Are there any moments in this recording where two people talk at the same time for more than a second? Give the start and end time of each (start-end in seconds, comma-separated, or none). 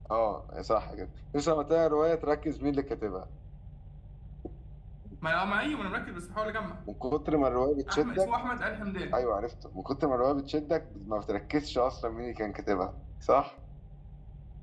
none